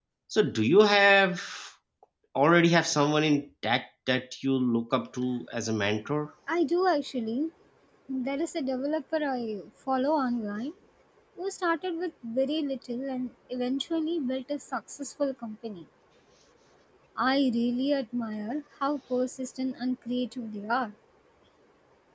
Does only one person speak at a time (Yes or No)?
Yes